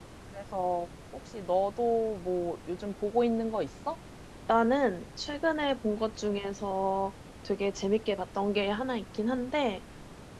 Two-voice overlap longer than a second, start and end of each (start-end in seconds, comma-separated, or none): none